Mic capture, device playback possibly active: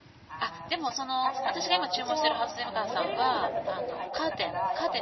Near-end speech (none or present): present